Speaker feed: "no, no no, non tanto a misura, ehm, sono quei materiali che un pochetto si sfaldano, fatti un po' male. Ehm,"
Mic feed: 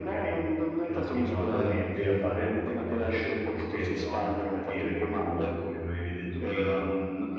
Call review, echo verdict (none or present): present